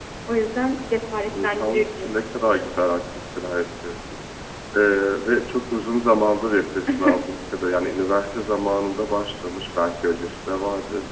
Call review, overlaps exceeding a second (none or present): present